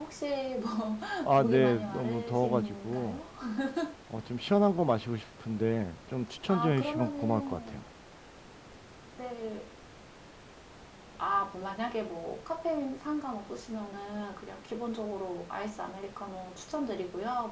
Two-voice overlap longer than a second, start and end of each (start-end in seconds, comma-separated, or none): 1.4-3.2, 6.5-7.8